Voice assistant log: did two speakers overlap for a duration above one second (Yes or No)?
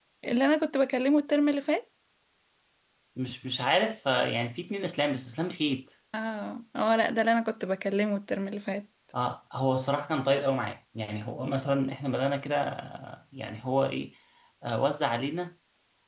No